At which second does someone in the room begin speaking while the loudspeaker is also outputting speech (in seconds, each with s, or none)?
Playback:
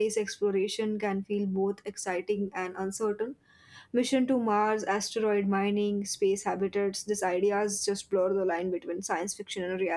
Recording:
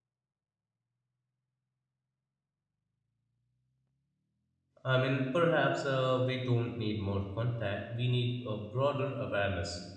4.8 s